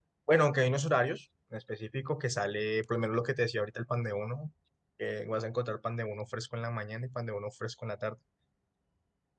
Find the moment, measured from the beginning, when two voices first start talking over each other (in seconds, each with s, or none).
none